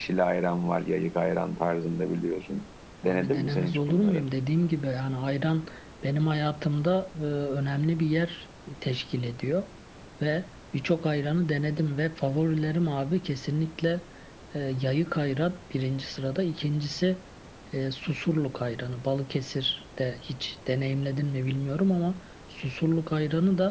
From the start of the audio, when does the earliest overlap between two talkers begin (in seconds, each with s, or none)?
3.1 s